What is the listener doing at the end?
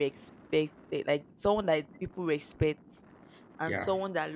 listening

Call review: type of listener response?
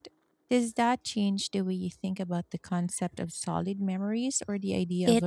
taking over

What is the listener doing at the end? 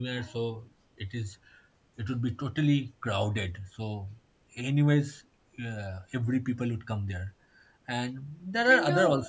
taking over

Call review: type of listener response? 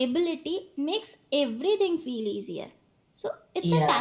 listening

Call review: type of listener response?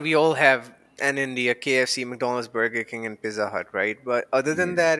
listening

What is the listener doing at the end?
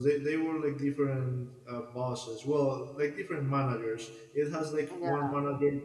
listening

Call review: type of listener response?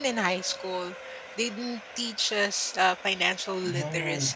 taking over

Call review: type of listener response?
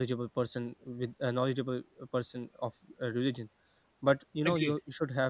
listening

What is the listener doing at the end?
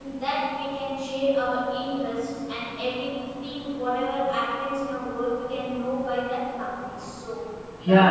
taking over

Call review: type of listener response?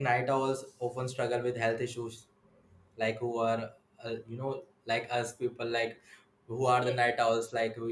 listening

